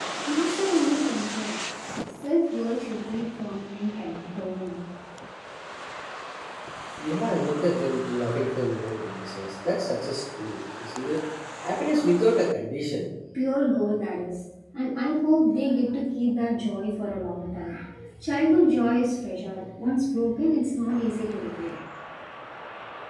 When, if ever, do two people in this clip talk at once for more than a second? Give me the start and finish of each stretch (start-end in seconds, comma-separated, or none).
none